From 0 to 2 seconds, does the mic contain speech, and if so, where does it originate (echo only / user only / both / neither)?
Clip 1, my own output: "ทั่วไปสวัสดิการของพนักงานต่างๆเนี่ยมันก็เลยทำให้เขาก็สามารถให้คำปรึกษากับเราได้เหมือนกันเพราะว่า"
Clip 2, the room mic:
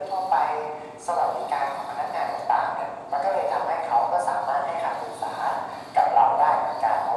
echo only